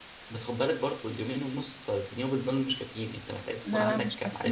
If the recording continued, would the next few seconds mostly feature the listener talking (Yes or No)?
Yes